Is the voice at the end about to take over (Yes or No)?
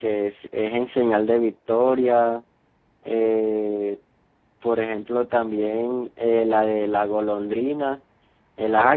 Yes